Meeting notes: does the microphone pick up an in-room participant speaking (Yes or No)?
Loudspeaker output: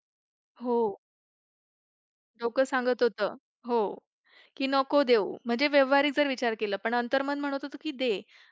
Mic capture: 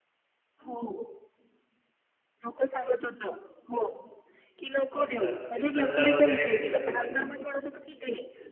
Yes